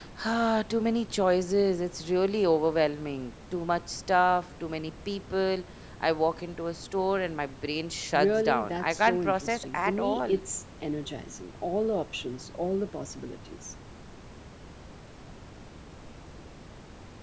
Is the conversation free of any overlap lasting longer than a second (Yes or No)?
No